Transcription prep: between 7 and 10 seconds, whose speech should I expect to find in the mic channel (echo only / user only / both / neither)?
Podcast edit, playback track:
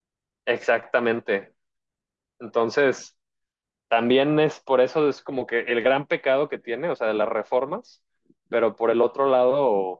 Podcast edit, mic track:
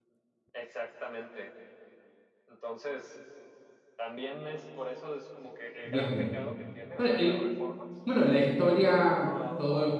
both